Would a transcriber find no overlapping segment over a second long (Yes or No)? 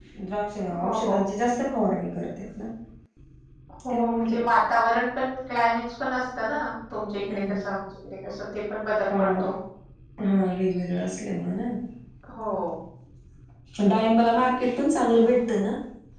Yes